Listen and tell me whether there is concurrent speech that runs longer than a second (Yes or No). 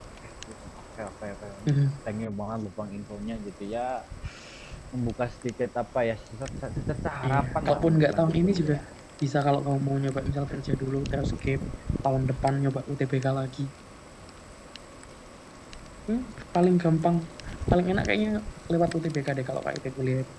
Yes